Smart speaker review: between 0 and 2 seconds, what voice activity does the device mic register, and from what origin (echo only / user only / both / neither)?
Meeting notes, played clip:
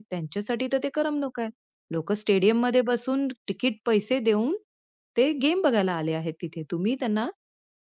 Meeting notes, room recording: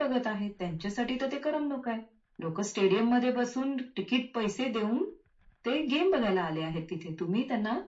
echo only